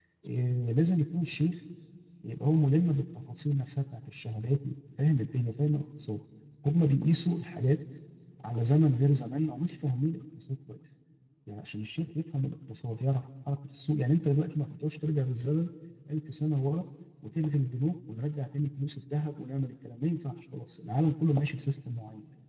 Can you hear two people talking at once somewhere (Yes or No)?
No